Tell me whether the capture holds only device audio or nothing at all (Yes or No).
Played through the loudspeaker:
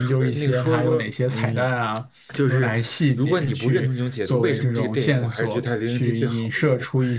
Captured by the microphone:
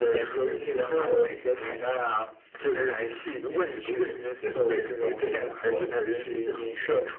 Yes